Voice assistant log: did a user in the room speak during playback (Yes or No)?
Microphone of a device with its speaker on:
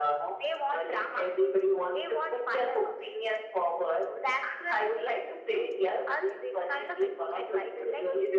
No